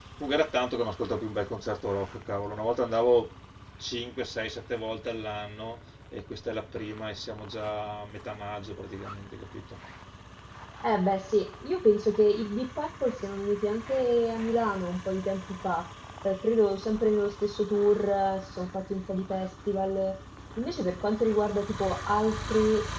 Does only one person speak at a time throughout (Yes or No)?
Yes